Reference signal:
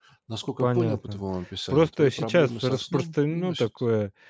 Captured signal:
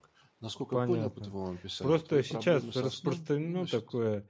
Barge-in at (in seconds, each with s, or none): none